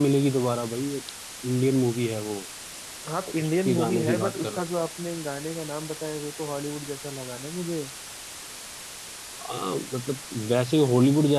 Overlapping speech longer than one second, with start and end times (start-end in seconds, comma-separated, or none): 3.4-4.6